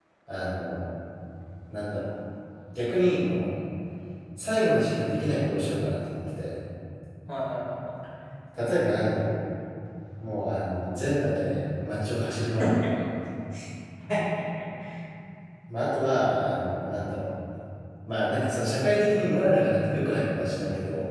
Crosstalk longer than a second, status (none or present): none